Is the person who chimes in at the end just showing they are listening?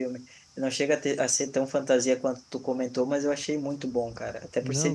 Yes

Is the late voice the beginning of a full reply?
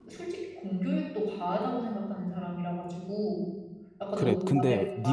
Yes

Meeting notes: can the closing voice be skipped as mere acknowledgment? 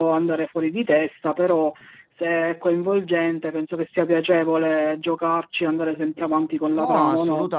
No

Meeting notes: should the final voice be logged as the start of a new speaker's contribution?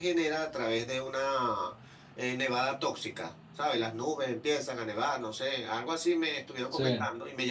No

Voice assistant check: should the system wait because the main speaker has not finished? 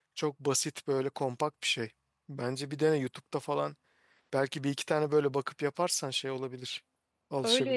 No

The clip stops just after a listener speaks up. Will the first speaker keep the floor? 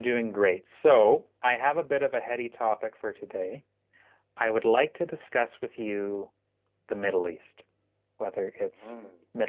Yes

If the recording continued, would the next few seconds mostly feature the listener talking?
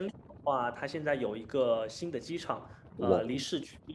No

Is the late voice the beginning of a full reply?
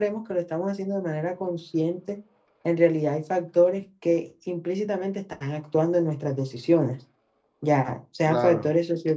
No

